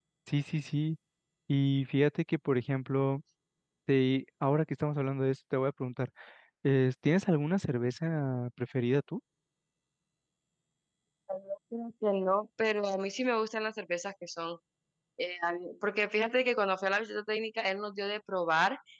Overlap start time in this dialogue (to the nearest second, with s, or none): none